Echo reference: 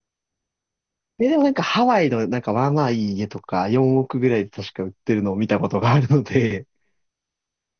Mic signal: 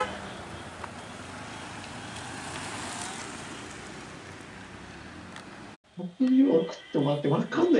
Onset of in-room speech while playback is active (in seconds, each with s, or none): 6.0 s